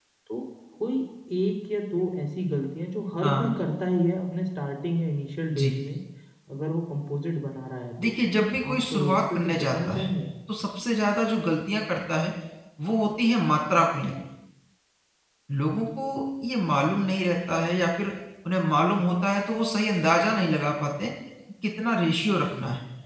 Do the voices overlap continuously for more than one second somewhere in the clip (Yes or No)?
Yes